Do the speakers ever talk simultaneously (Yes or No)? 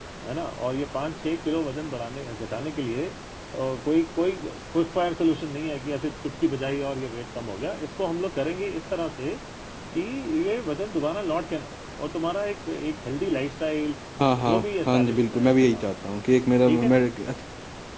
Yes